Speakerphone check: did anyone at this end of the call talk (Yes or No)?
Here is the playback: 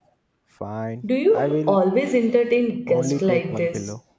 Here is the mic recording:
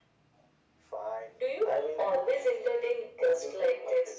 No